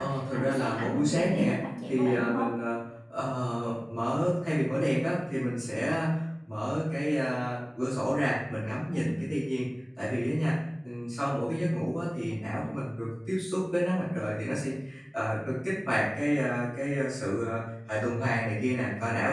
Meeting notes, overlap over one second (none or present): present